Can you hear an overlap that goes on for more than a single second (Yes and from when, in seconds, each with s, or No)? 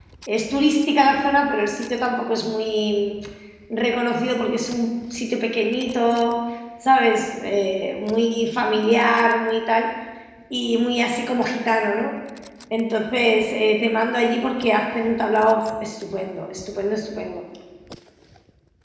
No